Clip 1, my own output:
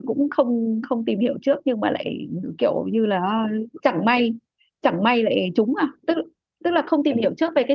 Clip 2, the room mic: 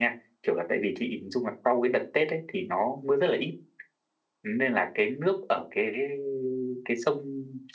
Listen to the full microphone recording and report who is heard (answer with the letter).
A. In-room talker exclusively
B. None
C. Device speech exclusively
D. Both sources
A